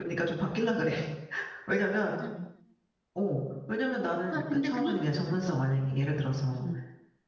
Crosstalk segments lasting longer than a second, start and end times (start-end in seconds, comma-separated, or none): 4.3-5.6